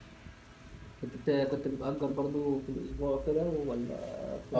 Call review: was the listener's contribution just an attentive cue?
No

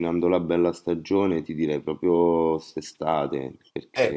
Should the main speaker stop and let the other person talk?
Yes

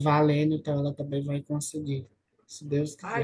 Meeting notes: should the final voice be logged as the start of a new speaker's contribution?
Yes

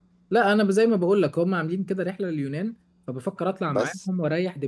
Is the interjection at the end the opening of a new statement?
No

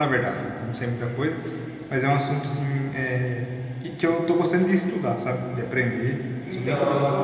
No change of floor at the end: No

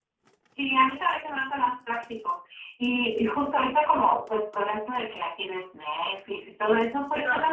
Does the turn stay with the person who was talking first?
Yes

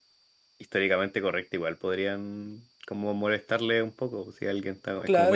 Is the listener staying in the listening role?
No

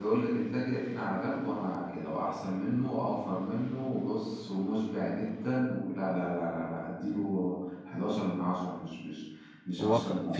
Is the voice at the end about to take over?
Yes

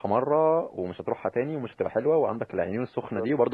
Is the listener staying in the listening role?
Yes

